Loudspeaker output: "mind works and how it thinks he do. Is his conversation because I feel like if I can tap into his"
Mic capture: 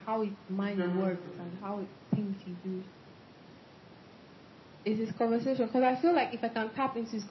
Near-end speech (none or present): present